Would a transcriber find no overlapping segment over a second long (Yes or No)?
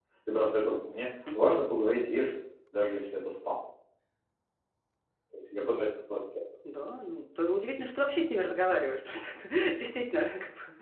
Yes